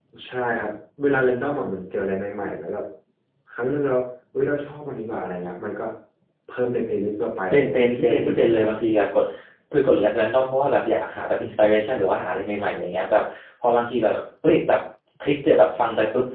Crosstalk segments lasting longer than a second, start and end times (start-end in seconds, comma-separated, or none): 7.5-8.7